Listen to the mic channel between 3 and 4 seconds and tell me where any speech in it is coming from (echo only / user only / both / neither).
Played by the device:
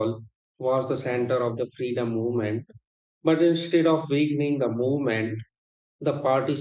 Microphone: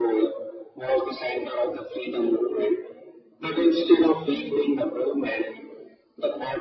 echo only